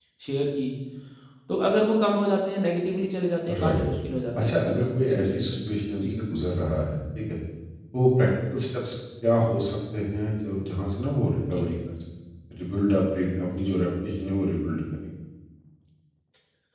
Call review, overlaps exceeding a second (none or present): present